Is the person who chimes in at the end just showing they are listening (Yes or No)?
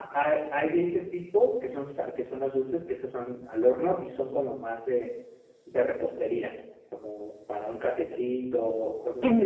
No